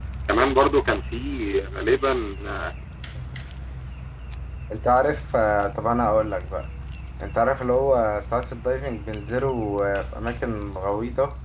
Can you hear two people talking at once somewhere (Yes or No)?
No